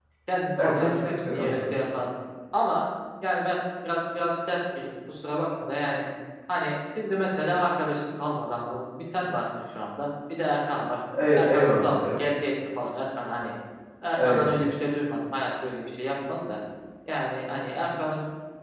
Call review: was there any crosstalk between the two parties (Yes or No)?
Yes